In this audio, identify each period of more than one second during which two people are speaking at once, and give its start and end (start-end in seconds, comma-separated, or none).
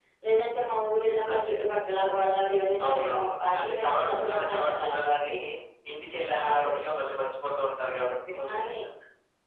2.9-4.9